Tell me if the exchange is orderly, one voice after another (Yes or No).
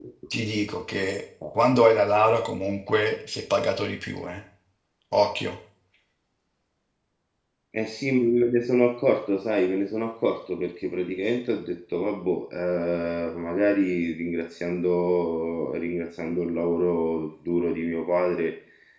Yes